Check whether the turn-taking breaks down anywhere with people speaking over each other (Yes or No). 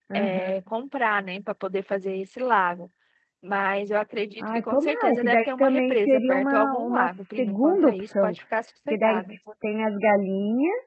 Yes